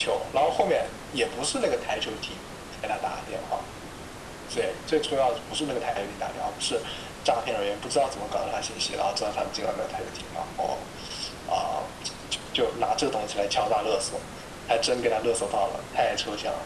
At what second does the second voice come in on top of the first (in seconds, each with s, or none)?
none